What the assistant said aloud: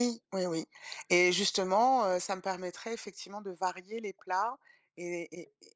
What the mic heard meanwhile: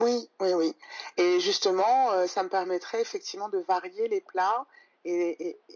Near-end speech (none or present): none